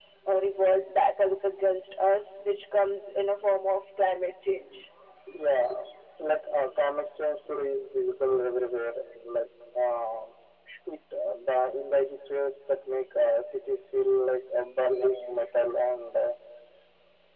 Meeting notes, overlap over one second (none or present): none